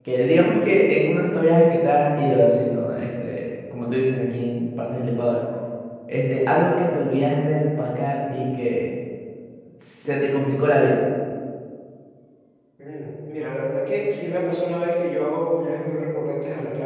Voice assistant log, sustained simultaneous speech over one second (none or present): none